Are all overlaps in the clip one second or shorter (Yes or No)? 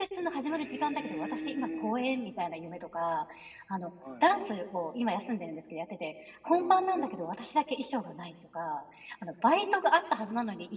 No